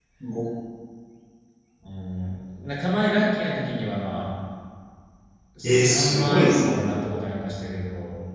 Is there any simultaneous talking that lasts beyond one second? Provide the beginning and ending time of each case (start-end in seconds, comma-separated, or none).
5.6-6.8